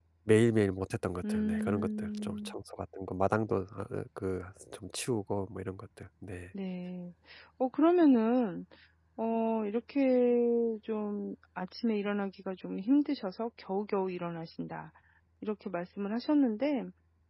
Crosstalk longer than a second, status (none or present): present